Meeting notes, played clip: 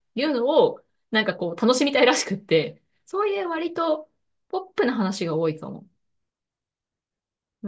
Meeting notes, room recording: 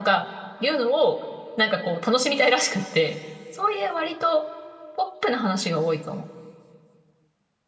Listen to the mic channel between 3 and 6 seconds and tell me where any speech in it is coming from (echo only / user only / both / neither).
echo only